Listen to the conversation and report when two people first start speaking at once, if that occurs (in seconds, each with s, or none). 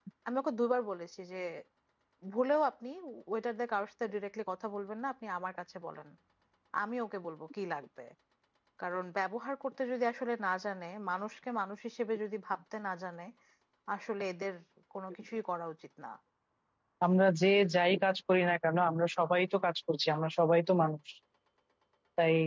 none